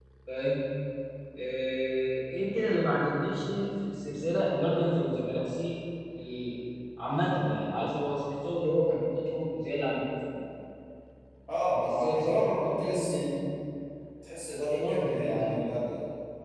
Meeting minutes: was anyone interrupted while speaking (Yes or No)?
Yes